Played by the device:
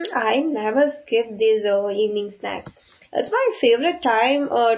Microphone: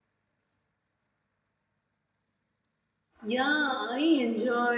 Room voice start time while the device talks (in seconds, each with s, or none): 3.2 s